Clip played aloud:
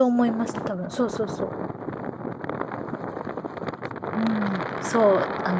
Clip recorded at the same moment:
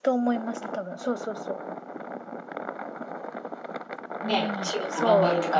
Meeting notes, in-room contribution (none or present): present